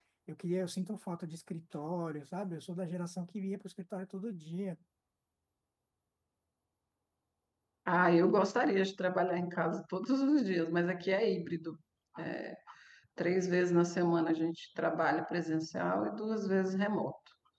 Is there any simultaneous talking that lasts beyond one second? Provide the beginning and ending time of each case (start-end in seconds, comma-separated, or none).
none